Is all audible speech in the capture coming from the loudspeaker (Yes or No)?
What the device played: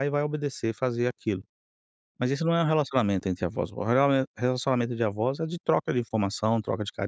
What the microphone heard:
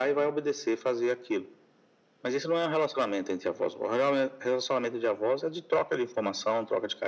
Yes